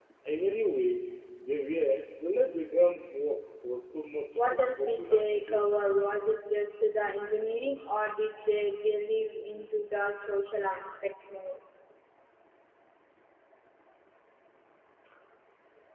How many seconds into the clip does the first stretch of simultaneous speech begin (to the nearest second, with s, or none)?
4 s